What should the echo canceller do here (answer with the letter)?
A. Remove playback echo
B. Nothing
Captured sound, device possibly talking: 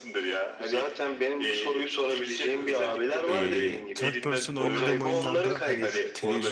A